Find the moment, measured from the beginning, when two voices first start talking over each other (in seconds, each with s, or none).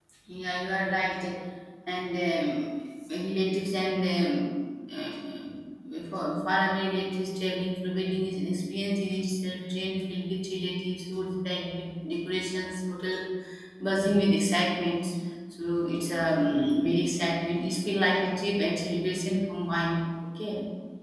none